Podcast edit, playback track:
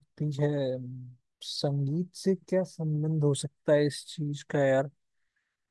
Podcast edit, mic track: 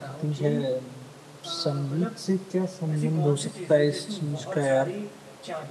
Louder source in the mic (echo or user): echo